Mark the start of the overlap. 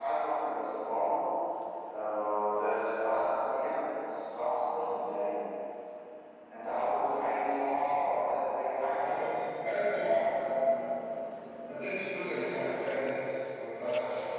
none

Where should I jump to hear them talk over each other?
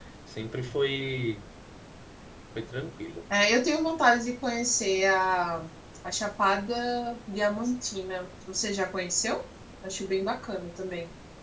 none

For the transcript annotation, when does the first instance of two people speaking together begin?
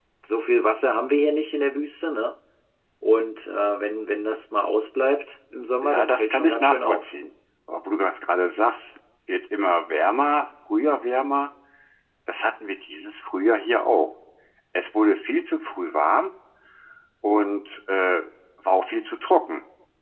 5.8 s

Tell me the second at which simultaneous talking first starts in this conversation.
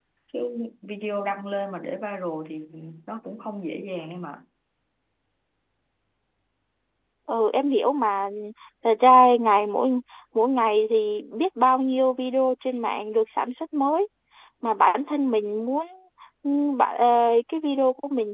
none

